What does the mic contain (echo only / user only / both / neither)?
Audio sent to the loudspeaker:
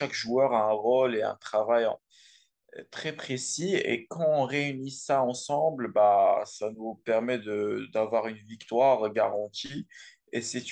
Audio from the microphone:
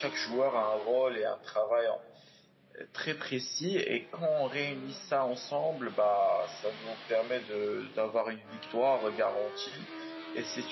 echo only